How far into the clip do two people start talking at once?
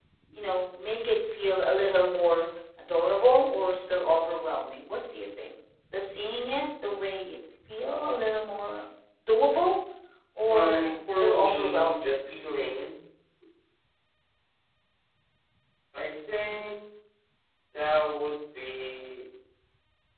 10.5 s

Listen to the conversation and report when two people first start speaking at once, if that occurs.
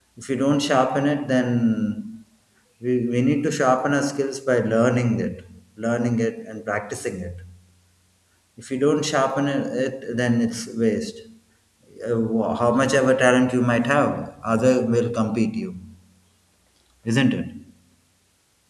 none

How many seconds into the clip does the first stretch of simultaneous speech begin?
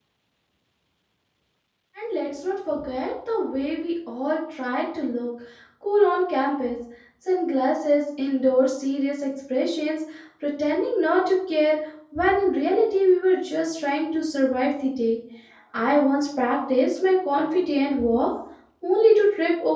none

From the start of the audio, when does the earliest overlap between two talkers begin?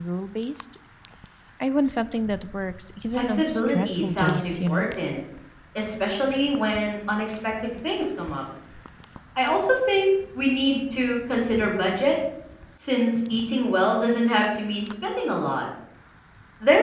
3.1 s

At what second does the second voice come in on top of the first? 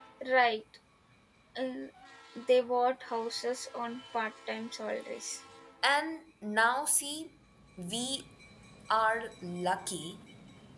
none

